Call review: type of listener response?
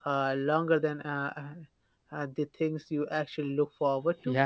taking over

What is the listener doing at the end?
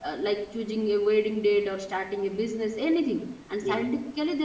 listening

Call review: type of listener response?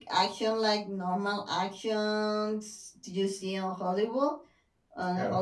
listening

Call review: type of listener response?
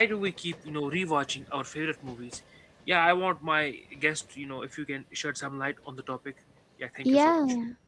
taking over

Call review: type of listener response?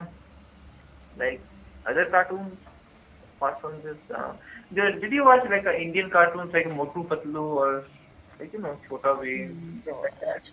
taking over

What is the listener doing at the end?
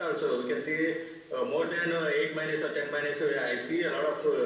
taking over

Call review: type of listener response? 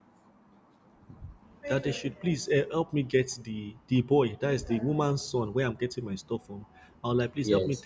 listening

